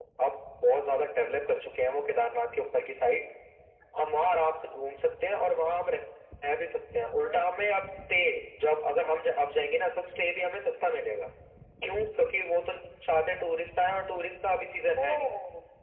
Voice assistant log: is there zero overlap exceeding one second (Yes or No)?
Yes